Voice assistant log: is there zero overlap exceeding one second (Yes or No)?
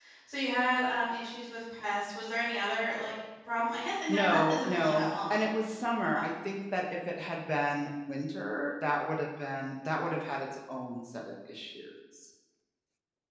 No